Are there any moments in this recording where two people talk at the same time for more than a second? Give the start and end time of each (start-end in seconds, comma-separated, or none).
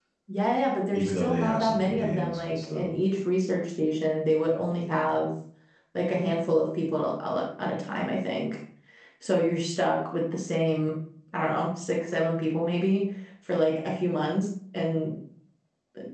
0.9-2.9